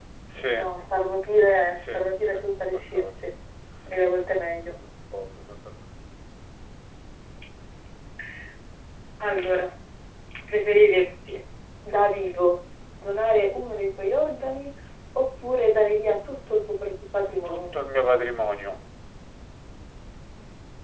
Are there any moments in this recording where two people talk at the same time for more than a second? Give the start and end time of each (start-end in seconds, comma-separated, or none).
1.9-3.3